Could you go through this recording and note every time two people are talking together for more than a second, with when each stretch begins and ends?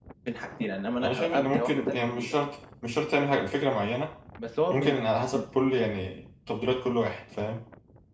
1.0-2.4

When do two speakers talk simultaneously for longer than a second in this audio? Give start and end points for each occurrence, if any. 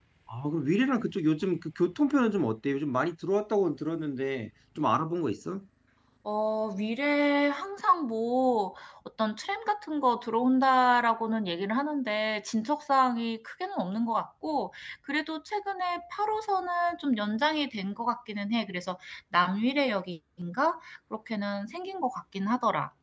none

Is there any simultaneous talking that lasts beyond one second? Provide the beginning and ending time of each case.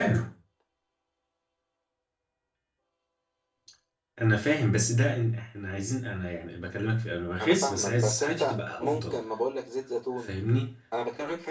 7.4-9.2

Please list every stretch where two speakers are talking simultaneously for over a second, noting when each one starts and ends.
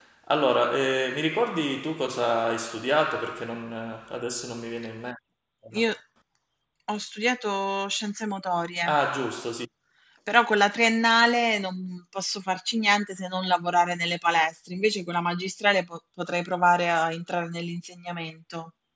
none

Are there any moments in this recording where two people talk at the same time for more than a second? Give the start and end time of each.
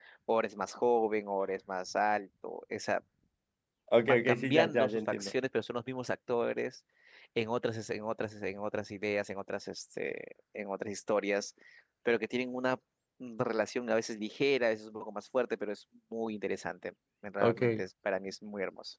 4.0-5.3

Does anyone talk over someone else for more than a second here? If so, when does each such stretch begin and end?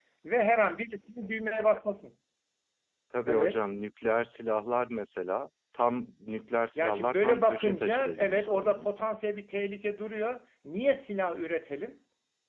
6.8-8.9

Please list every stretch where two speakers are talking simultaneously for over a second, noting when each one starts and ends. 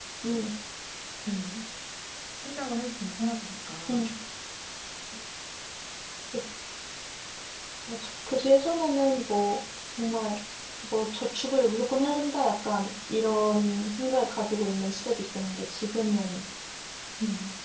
none

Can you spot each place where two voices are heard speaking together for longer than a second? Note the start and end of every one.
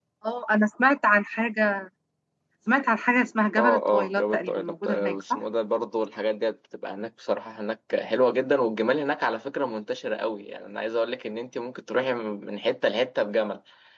3.6-5.4

